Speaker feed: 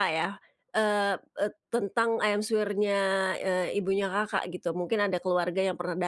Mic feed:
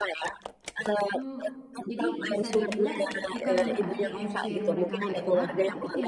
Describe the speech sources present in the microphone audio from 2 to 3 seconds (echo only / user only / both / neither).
both